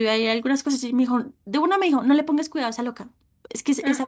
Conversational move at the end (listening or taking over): listening